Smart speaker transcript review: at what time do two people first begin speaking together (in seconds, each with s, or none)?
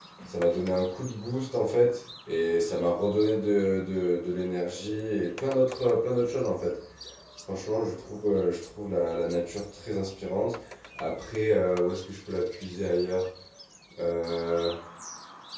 none